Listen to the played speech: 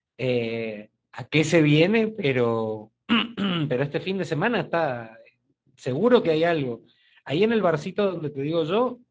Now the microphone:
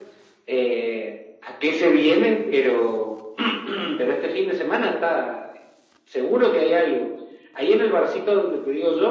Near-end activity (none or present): none